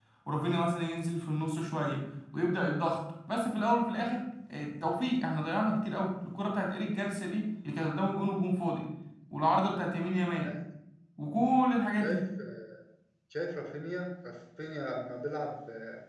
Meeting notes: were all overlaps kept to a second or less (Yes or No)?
Yes